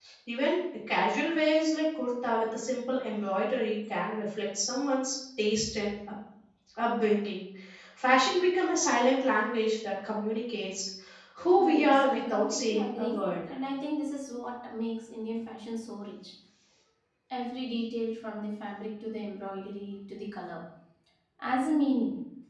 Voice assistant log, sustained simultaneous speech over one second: present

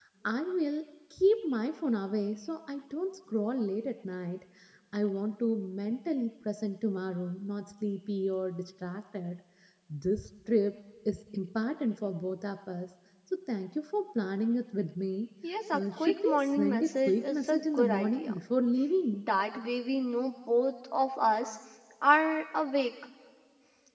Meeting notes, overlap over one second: present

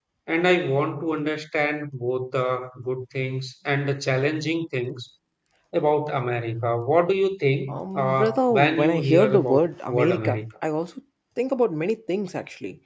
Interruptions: present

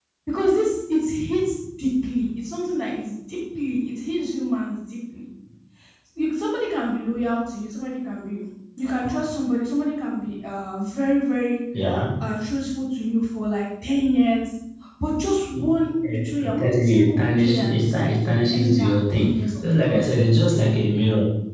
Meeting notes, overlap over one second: present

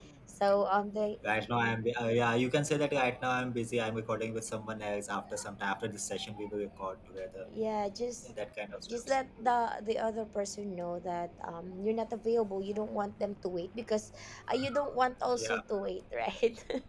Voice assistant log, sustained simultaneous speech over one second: none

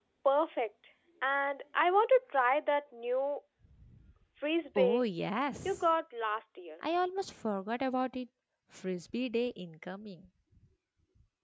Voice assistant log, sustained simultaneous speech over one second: none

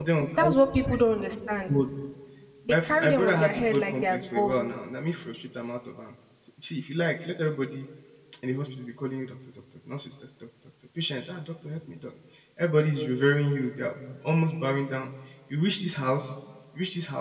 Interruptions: present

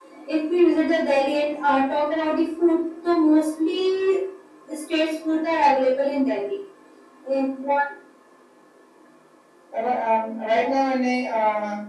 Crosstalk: none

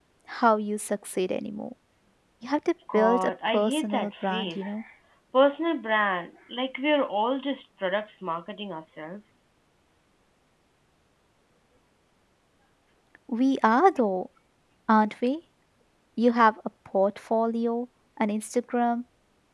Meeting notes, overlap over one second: present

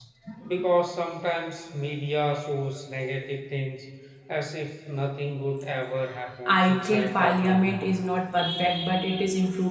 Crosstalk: present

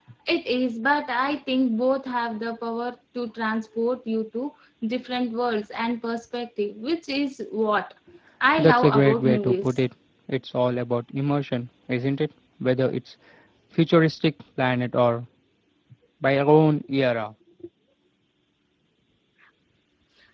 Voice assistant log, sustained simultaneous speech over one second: present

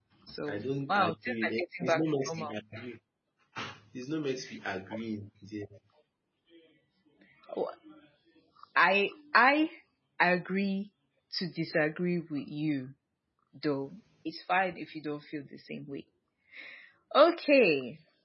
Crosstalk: present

